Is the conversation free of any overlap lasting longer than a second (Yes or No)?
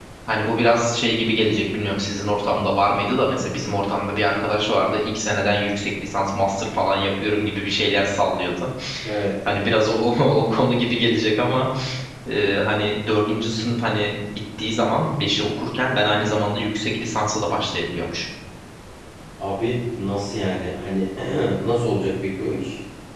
Yes